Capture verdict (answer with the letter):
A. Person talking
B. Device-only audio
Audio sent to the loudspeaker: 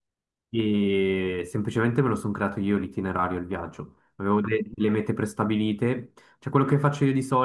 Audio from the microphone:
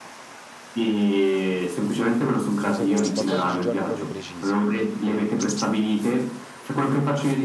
A